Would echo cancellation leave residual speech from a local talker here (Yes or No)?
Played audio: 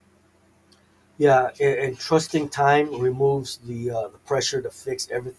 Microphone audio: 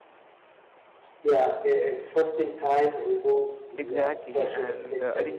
Yes